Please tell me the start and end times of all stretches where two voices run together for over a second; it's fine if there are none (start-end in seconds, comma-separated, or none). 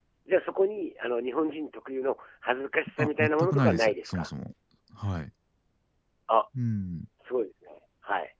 3.0-4.3